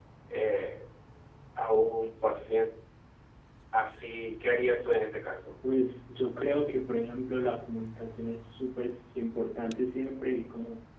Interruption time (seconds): none

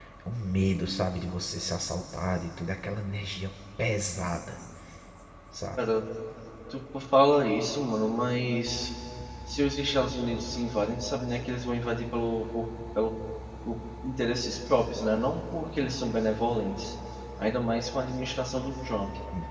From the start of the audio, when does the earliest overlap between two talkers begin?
none

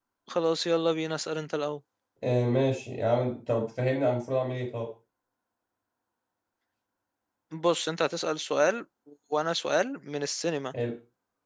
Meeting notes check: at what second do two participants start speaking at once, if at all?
none

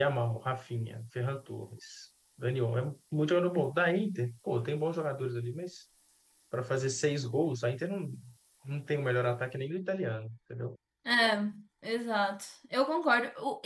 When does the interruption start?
none

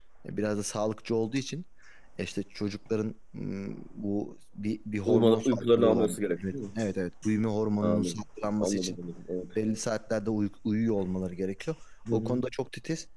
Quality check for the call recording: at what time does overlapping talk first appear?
5.1 s

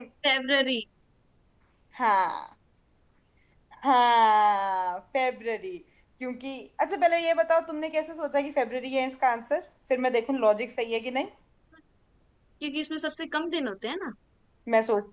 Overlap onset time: none

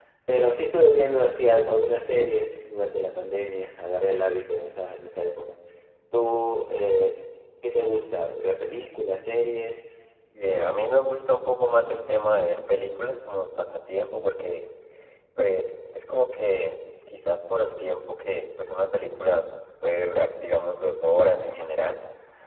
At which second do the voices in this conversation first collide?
none

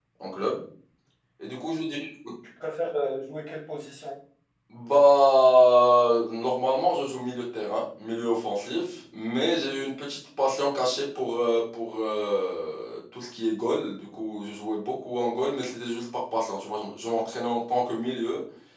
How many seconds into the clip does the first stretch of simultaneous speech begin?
none

